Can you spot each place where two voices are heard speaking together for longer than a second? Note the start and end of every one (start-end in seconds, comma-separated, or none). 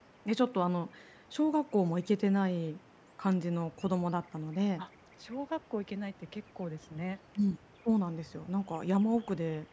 none